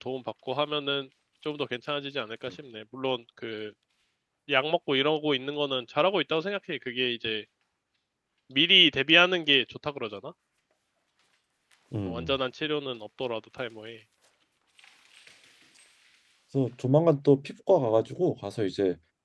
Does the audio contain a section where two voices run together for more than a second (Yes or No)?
No